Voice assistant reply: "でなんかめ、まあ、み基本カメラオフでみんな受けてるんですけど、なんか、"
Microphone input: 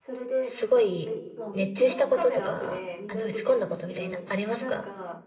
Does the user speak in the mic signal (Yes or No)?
Yes